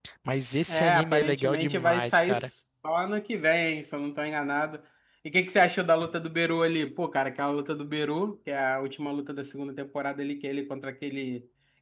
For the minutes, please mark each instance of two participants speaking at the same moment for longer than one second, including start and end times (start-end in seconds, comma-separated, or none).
0.7-2.5